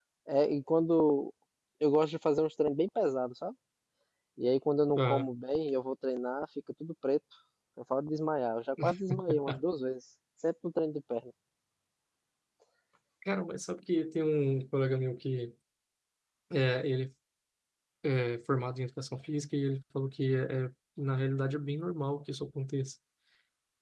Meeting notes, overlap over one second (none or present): none